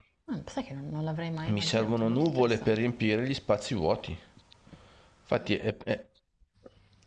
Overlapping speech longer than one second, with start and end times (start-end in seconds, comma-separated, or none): 1.5-2.8